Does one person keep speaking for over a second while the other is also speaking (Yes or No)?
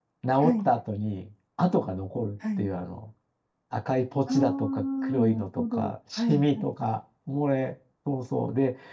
Yes